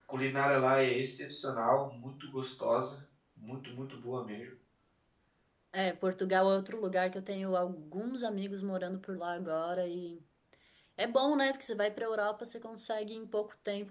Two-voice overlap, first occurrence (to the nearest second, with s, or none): none